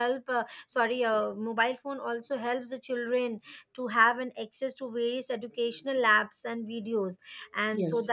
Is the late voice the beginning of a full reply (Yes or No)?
No